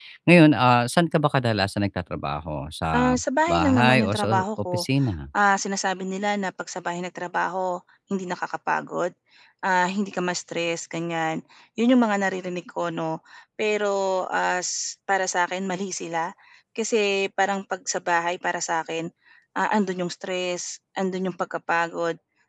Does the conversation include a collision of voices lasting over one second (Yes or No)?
Yes